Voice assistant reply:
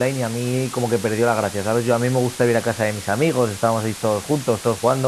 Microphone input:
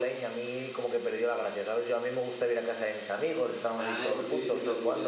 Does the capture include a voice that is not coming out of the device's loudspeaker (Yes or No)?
Yes